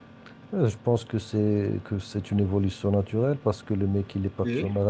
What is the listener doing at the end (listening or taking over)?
listening